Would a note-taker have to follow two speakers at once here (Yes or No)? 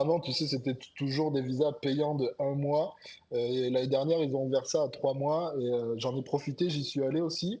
No